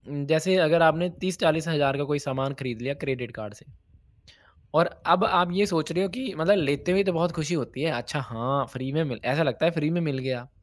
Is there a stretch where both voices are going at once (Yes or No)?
No